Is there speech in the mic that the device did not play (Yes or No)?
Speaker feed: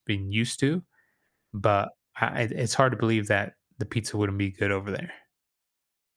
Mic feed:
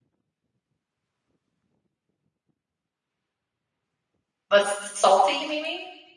Yes